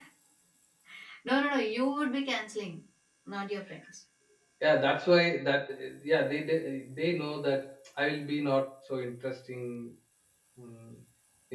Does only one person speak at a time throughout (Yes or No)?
Yes